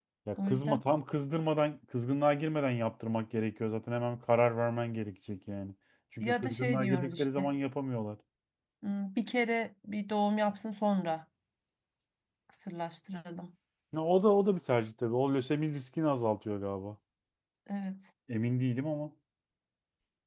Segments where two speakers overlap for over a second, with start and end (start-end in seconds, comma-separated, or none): 6.2-7.5